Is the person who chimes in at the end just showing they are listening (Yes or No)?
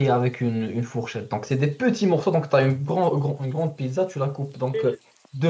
Yes